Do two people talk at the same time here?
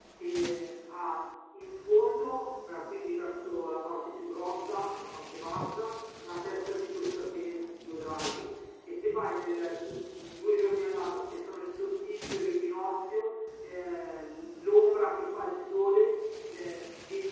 No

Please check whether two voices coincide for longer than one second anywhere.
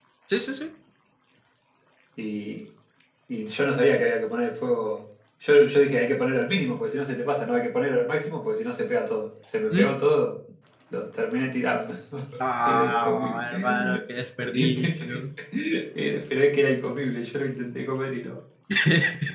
Yes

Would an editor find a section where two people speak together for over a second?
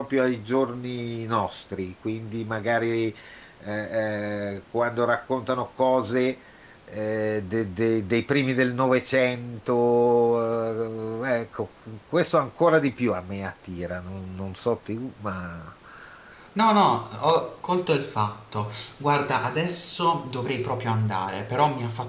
No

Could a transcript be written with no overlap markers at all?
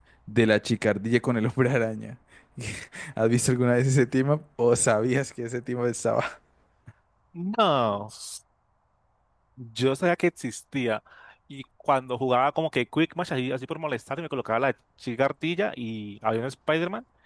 Yes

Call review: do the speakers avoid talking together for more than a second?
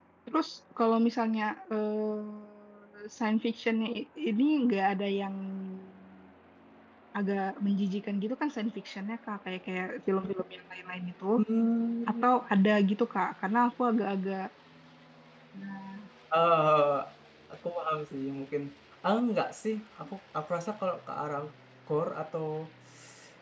Yes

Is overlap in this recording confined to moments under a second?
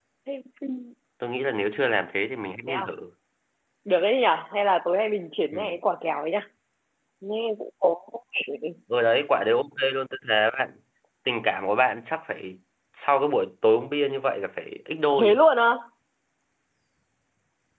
Yes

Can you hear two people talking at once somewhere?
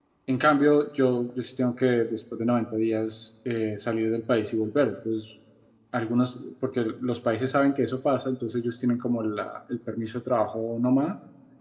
No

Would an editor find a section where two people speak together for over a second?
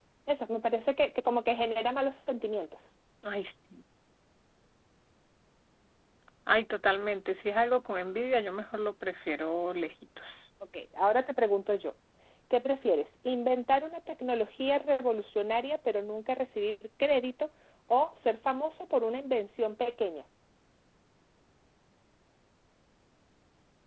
No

